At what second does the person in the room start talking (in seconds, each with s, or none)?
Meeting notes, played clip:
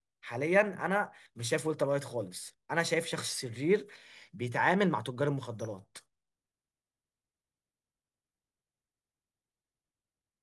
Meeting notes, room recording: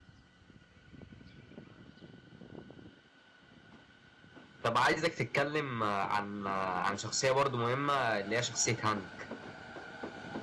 4.6 s